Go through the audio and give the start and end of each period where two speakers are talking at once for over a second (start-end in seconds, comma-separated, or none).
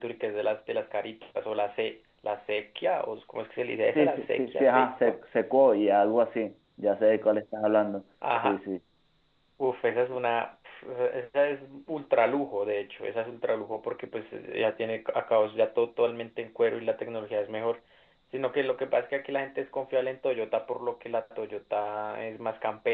4.0-5.2